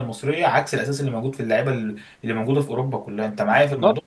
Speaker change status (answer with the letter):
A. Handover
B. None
A